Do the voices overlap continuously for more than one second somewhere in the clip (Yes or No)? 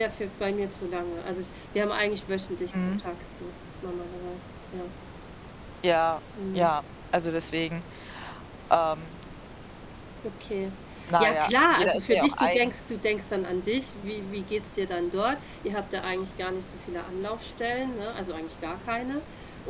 Yes